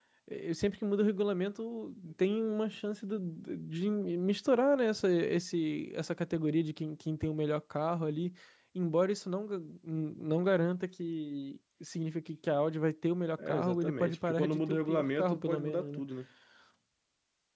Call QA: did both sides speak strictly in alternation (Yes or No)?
No